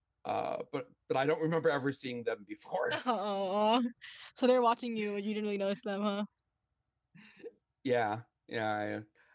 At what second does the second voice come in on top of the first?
none

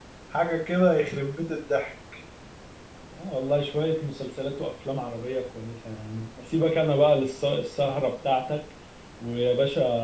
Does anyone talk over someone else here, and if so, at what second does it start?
none

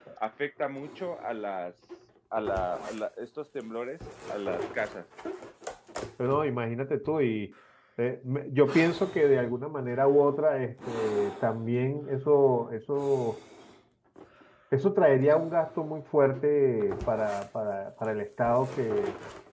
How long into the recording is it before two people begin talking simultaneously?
none

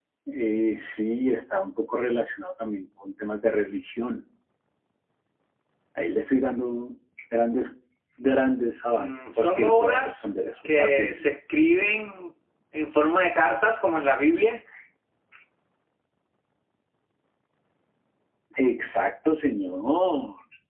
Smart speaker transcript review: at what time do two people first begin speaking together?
8.9 s

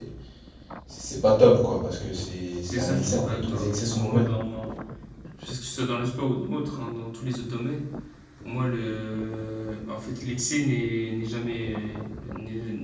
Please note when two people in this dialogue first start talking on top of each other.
2.6 s

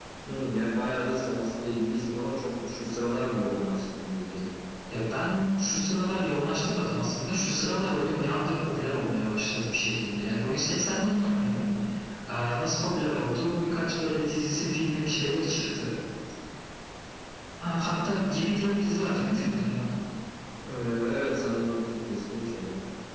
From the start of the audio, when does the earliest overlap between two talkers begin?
none

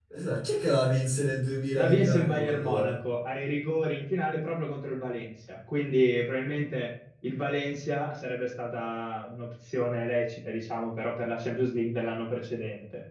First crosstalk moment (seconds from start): 1.7 s

